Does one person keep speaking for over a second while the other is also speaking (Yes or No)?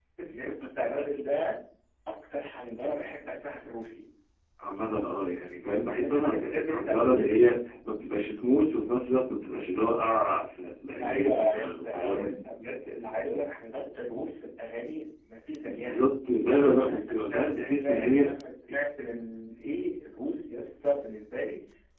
Yes